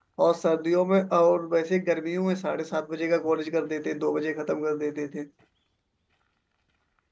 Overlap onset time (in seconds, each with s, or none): none